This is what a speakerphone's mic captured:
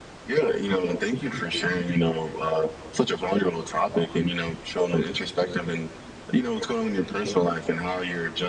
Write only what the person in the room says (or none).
none